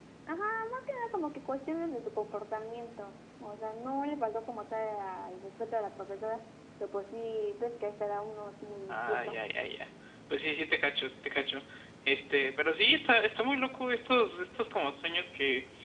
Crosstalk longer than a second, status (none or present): none